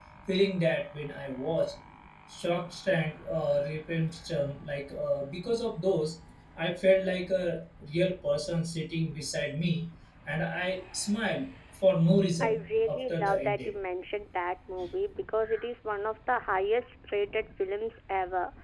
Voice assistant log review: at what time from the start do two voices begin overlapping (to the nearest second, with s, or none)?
12 s